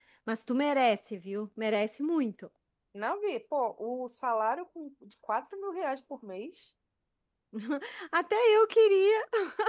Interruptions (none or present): none